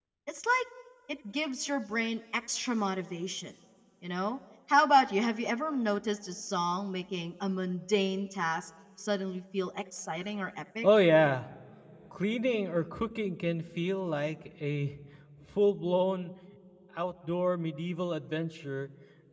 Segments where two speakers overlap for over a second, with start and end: none

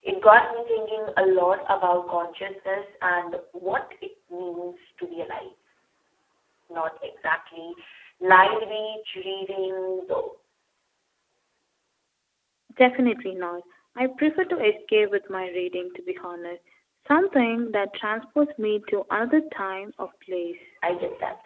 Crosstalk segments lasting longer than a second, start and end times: none

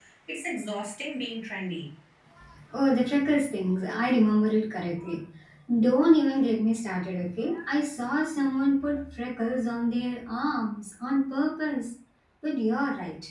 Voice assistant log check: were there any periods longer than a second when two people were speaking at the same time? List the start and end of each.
none

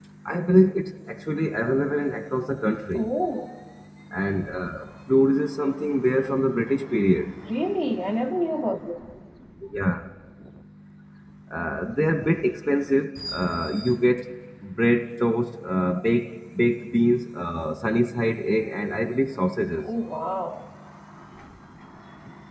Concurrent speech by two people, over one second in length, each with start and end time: none

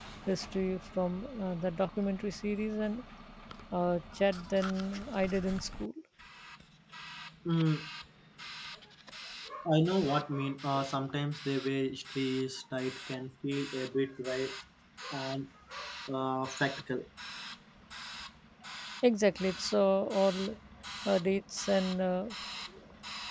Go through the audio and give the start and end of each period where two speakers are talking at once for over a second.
none

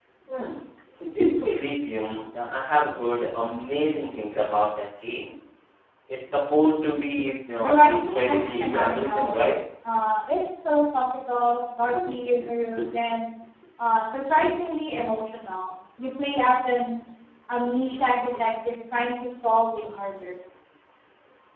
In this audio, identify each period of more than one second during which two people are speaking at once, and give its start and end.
7.6-9.4

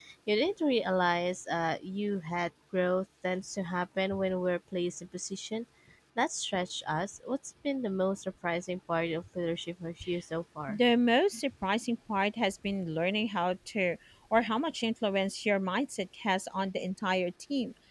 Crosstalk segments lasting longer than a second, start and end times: none

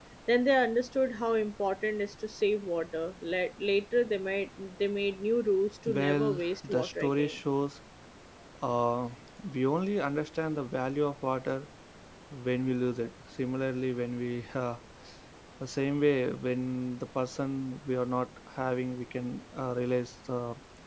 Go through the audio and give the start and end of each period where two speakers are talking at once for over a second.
5.9-7.4

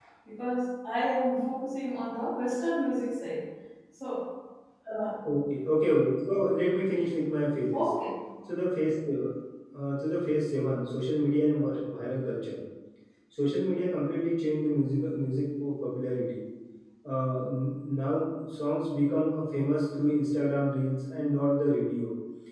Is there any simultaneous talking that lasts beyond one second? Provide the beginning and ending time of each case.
none

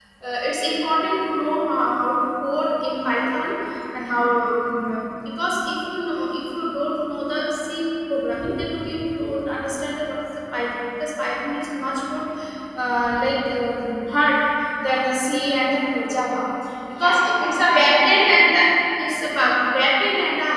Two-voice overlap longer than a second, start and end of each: 17.0-18.5

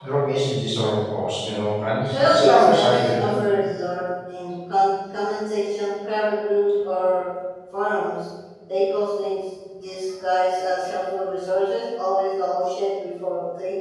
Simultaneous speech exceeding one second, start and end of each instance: 2.1-3.4

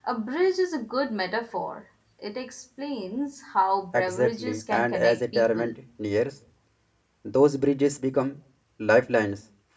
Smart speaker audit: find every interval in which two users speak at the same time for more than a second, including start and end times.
3.9-5.7

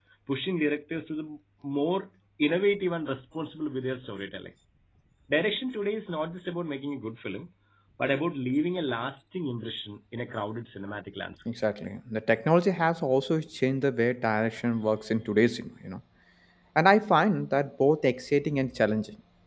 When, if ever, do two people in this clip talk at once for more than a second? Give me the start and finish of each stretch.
none

